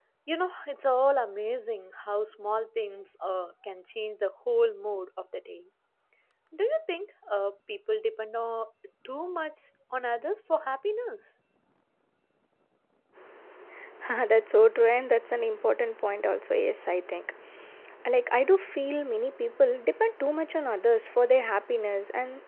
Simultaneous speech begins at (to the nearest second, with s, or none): none